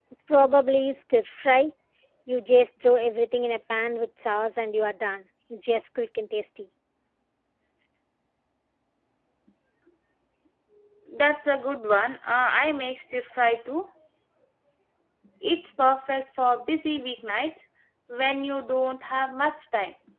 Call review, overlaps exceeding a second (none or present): none